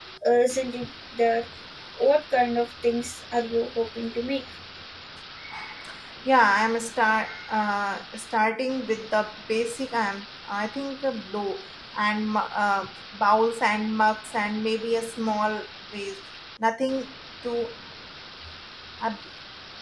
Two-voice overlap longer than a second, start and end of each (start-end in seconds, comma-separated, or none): none